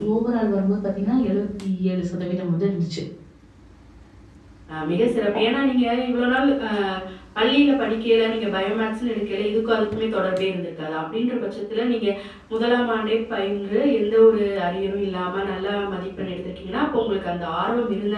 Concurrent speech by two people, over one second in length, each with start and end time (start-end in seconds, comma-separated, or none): none